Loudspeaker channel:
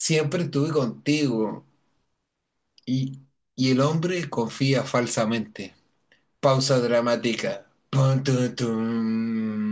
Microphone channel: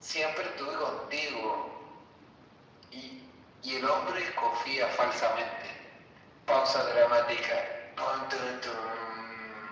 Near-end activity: none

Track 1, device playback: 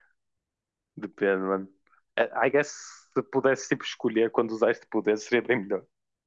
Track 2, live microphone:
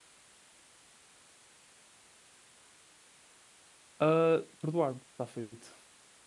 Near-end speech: present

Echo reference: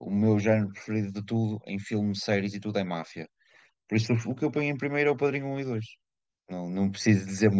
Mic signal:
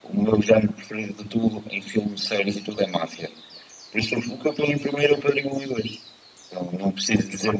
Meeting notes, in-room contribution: none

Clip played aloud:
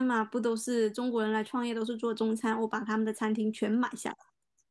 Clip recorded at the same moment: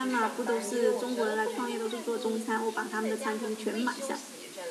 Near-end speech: present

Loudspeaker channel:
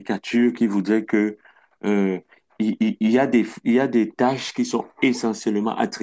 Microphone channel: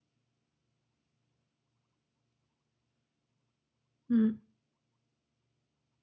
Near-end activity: present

